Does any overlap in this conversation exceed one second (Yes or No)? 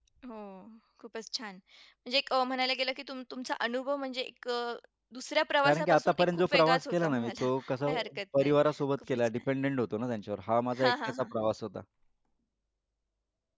Yes